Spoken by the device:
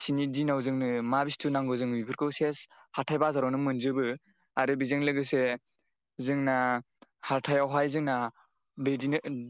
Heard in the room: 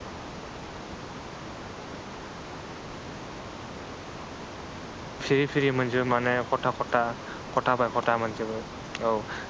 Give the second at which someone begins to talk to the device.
5.2 s

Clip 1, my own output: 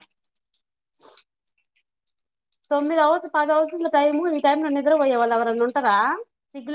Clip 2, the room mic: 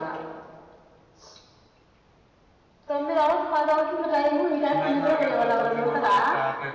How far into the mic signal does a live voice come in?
4.8 s

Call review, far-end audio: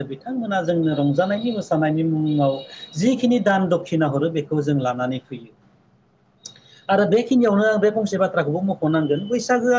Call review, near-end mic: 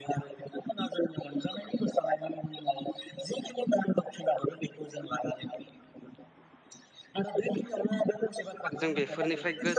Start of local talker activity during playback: 8.8 s

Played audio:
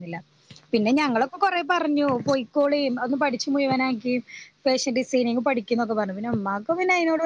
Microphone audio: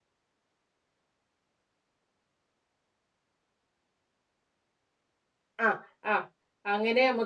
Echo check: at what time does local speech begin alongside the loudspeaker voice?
5.6 s

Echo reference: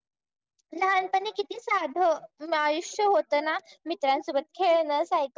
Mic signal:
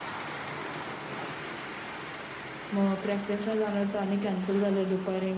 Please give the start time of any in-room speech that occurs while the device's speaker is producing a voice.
2.7 s

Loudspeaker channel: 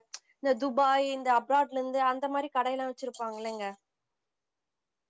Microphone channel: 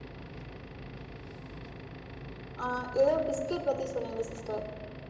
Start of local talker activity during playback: 2.6 s

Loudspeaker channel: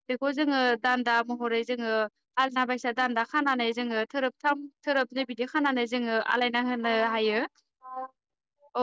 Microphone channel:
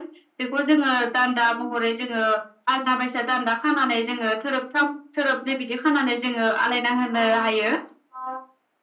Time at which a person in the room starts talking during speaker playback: none

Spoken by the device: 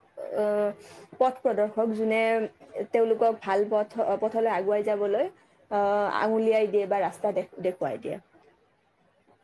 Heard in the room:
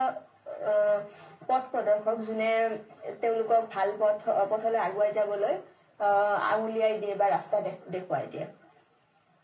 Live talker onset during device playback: none

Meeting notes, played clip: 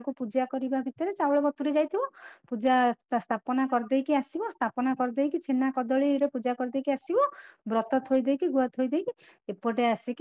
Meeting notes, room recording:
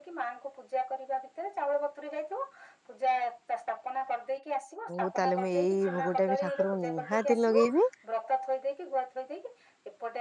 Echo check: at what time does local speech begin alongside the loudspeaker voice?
4.9 s

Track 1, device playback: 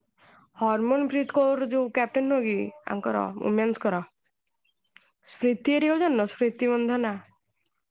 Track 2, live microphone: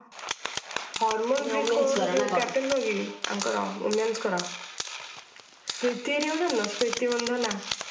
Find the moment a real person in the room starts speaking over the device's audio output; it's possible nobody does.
1.4 s

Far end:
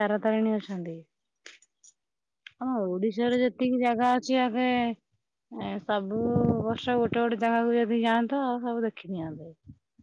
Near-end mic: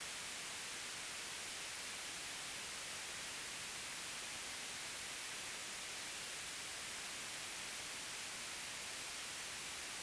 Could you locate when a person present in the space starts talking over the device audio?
none

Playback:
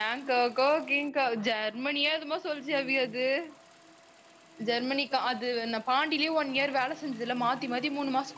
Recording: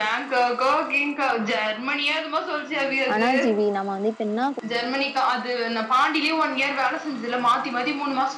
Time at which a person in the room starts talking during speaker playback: 3.1 s

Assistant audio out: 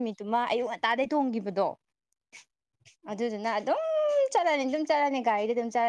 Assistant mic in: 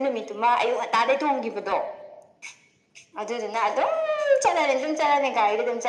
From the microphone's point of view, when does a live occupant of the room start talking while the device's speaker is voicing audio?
none

